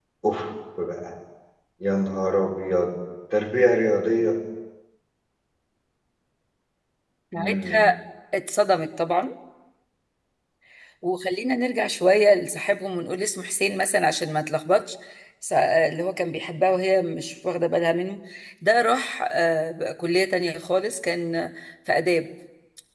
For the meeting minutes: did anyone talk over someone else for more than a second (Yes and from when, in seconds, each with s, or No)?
No